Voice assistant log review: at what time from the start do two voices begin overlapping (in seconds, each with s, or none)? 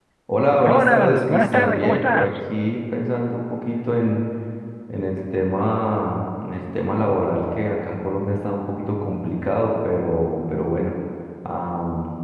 0.6 s